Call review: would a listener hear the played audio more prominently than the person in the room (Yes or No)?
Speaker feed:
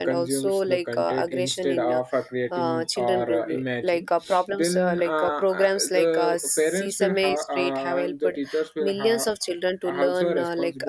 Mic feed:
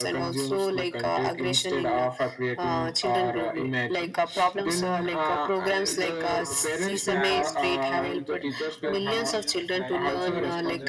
Yes